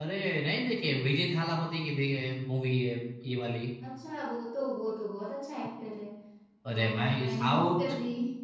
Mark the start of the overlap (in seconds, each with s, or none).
6.7 s